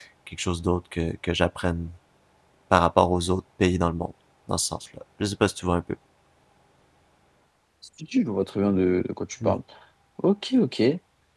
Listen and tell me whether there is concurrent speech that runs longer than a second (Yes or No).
No